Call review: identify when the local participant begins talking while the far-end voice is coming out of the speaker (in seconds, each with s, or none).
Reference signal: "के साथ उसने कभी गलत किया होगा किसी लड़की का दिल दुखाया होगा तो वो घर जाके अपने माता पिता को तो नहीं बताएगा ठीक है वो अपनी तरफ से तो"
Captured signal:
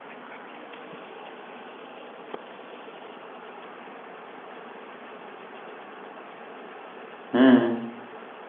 7.4 s